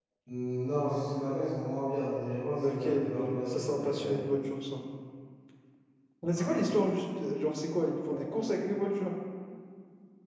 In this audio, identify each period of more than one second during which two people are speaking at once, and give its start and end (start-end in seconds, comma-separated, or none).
2.6-4.2